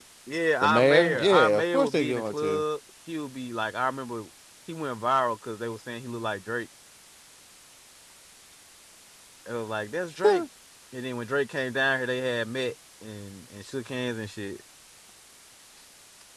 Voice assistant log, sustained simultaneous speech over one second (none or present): present